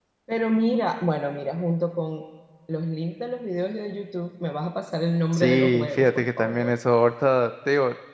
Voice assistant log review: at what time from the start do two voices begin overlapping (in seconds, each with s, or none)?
5.3 s